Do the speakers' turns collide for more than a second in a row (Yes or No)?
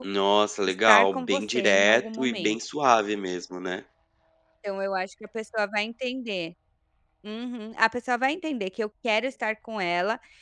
Yes